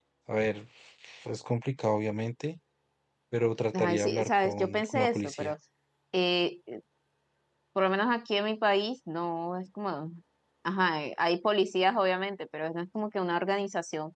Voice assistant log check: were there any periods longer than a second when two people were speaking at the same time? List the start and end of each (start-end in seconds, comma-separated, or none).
3.7-5.5